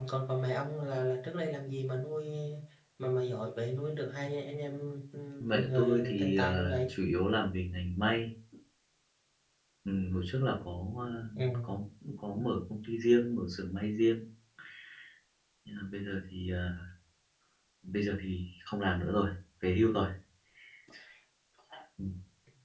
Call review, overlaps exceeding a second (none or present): present